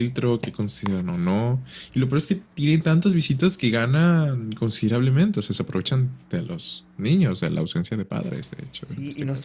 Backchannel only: No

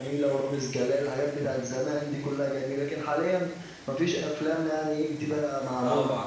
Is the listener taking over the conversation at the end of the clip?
Yes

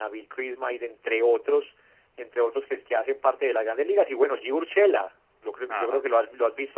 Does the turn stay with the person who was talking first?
Yes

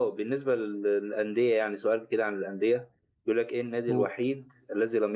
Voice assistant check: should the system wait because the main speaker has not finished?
Yes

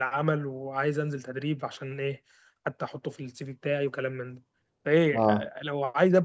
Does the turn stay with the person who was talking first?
Yes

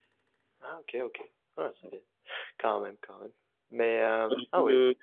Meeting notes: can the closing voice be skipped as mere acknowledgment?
No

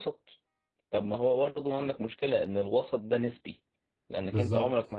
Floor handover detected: No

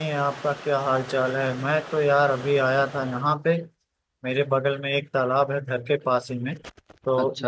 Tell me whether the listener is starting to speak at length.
No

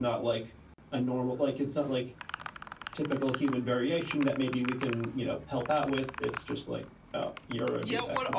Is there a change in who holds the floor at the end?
Yes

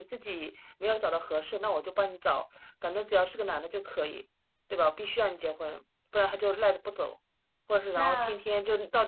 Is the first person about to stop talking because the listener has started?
No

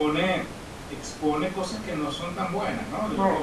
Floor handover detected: Yes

